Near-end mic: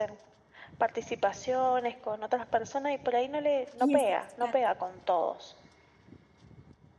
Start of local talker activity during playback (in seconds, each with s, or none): 3.8 s